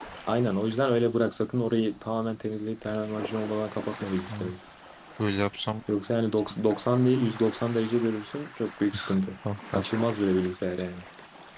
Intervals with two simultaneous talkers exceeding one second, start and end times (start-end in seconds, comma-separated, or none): none